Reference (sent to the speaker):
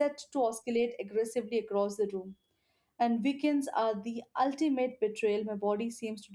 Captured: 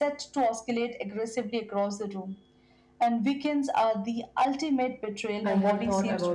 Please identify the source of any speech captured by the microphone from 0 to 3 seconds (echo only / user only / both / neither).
echo only